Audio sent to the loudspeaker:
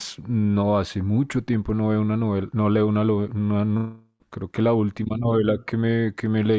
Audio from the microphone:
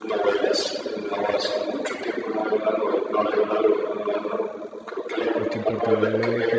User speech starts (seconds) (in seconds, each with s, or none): 5.4 s